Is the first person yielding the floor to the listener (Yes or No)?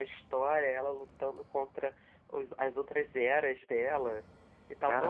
No